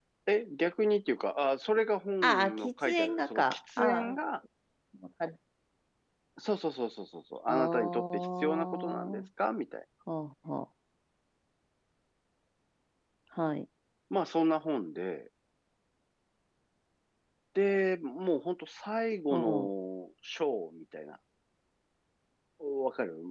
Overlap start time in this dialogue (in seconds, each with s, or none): 2.2 s